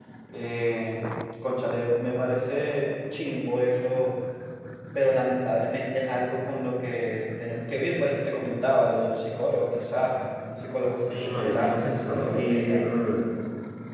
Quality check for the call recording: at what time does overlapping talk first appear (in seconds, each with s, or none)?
11.1 s